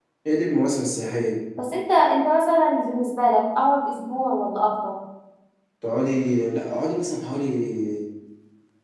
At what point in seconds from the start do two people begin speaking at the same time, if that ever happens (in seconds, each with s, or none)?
none